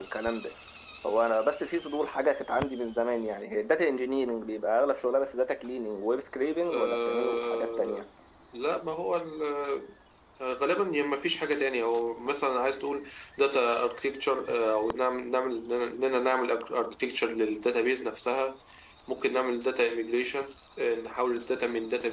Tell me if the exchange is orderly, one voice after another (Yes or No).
No